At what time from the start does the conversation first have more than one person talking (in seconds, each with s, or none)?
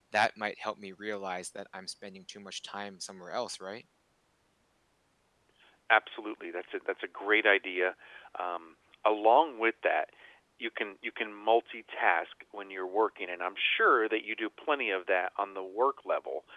none